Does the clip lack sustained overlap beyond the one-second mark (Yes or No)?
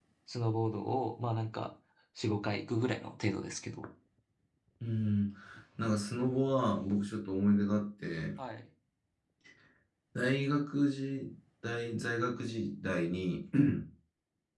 Yes